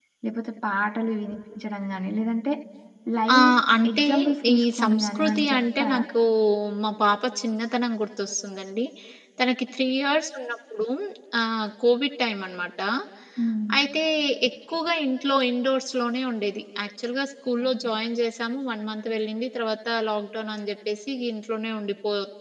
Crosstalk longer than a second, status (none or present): present